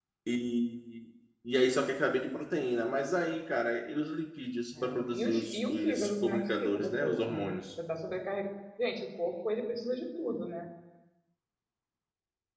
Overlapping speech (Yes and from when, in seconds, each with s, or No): Yes, from 4.7 s